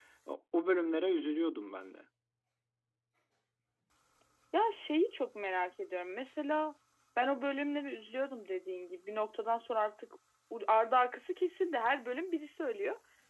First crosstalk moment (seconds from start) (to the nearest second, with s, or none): none